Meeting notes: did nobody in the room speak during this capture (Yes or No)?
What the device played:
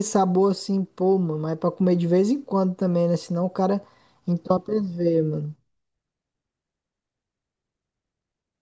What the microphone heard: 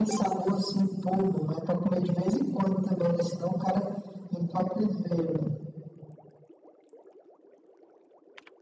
Yes